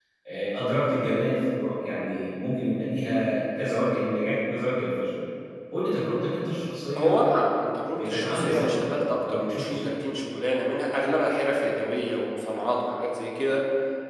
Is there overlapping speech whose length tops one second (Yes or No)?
Yes